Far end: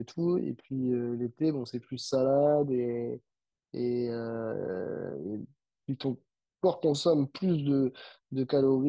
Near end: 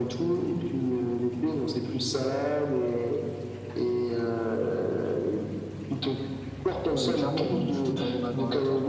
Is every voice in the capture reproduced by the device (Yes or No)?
No